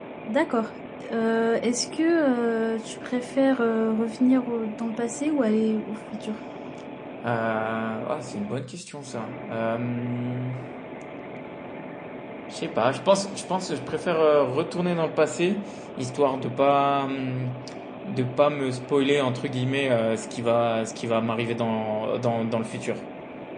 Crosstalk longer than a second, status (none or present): none